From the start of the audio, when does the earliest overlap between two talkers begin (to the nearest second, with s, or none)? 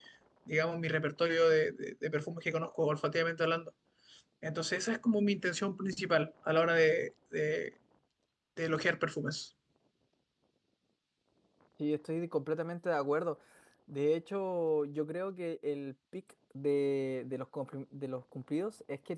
none